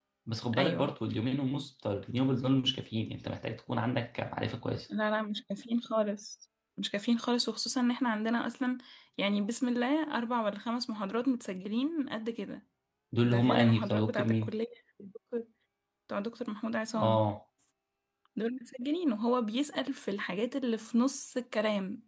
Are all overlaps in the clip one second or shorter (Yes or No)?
No